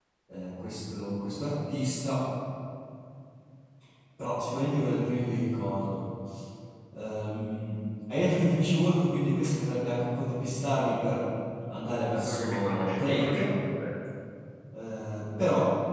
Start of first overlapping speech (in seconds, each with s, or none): 12.2 s